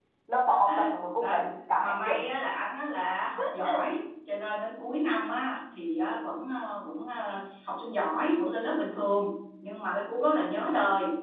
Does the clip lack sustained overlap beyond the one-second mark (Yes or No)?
Yes